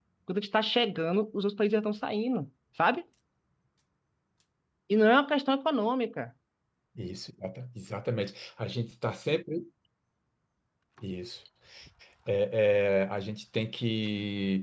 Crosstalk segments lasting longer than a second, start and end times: none

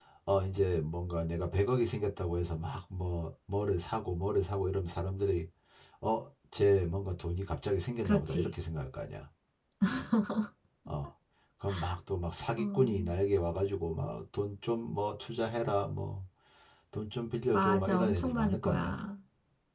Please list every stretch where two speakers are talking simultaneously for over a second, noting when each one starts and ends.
17.5-19.0

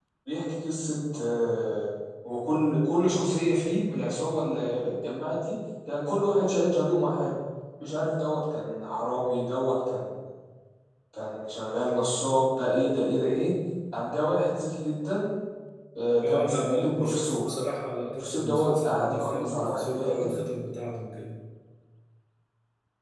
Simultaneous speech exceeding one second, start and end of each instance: 16.2-17.5, 18.2-20.3

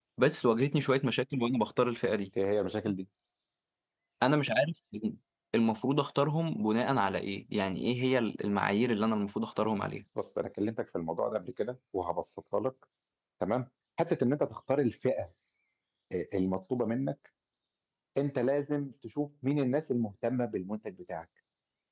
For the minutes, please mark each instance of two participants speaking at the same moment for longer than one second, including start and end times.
none

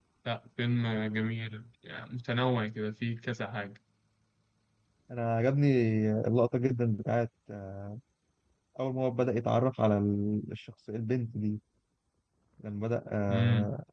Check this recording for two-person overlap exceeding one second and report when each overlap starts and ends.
none

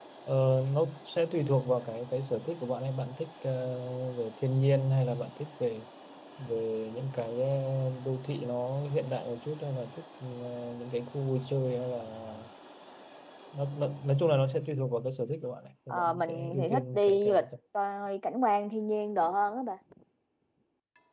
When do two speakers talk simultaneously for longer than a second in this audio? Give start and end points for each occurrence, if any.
15.9-17.4

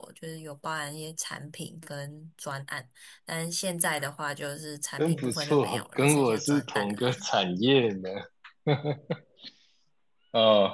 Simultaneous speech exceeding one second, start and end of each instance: 5.0-7.2

